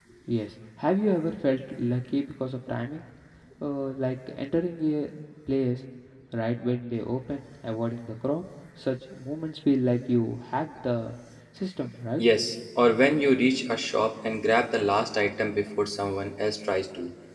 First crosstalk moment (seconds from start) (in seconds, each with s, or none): none